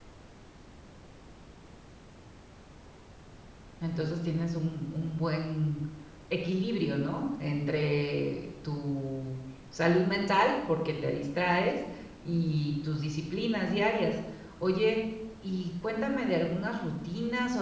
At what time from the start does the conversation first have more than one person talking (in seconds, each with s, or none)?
none